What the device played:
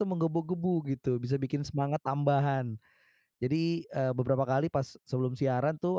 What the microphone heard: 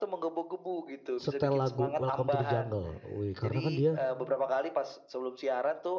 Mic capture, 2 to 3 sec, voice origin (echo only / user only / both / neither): both